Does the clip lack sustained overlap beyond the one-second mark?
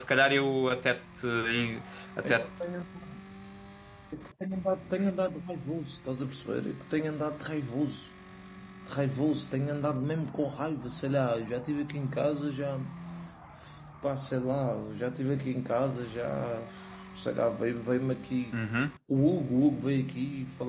Yes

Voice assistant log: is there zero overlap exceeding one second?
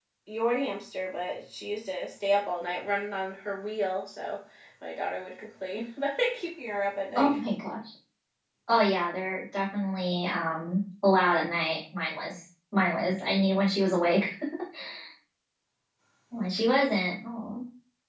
Yes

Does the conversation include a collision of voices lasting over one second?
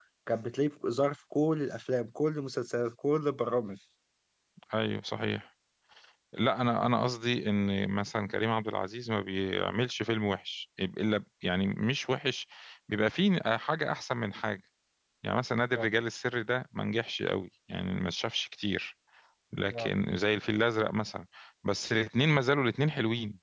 No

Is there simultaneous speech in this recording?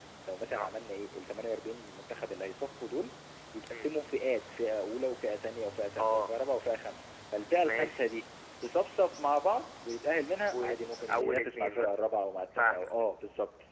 Yes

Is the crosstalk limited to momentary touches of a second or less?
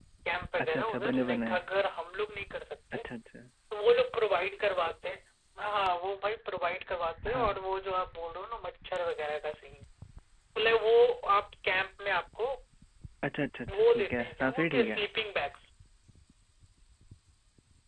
No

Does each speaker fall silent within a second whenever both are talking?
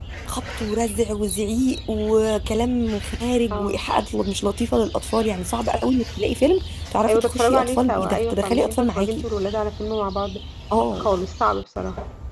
No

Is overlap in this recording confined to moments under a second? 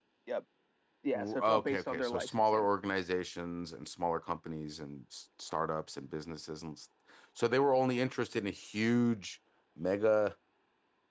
No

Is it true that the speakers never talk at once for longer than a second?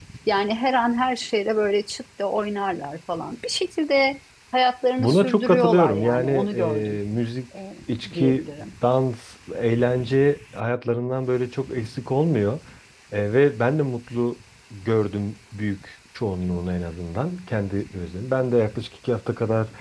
No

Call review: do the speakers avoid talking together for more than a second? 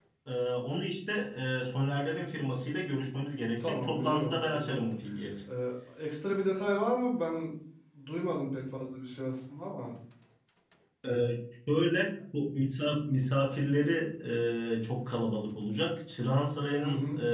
No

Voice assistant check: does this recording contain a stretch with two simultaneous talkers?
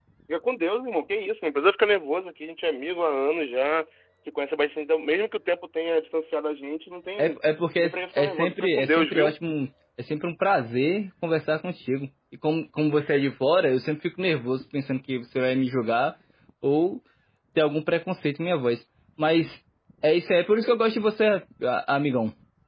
Yes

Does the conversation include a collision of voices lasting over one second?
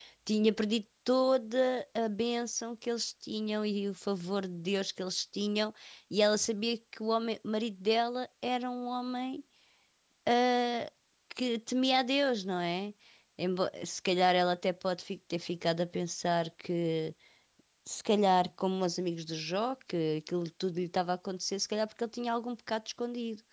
No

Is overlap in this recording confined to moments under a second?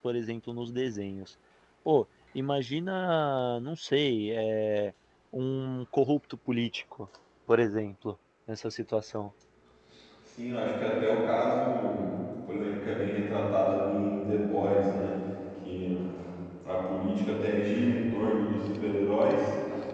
Yes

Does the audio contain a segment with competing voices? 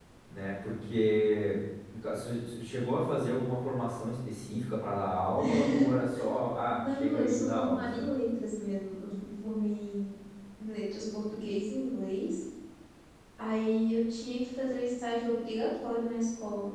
Yes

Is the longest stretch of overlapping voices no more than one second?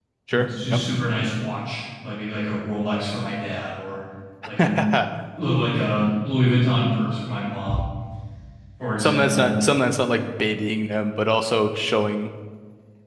Yes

